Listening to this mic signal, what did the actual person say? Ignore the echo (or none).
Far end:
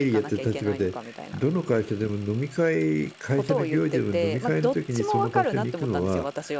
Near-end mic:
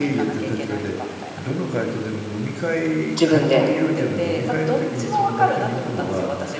自分で。